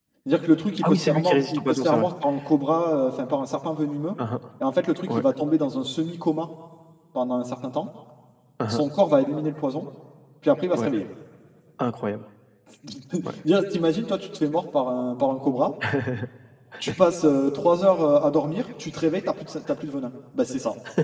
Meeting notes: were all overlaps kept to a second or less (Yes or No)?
No